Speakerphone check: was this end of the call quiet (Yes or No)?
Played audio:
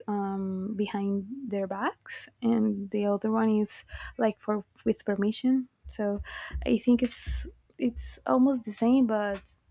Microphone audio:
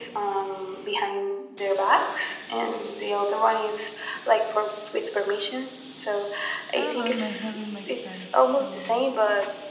No